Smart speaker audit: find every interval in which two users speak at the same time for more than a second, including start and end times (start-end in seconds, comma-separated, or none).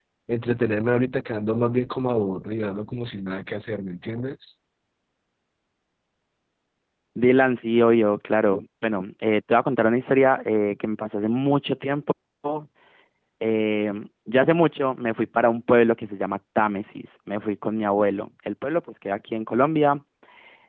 none